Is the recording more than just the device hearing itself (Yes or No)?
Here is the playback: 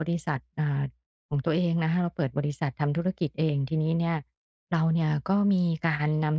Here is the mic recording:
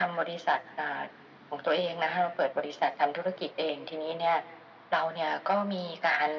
No